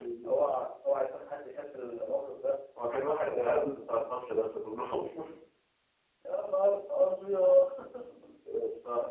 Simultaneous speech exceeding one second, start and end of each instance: none

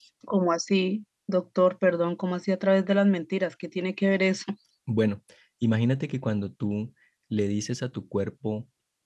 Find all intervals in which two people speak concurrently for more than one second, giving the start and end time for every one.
none

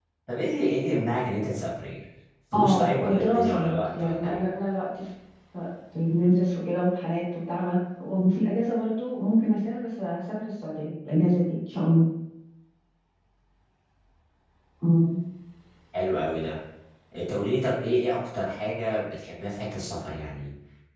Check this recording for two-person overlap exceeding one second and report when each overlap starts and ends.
2.5-4.4

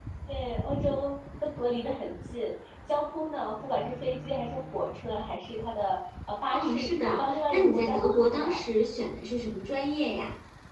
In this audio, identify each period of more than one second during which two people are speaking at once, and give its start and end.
6.5-8.6

